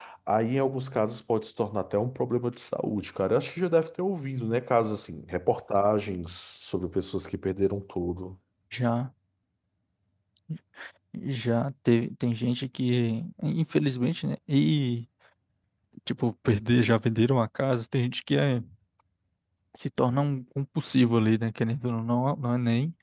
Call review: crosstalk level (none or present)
none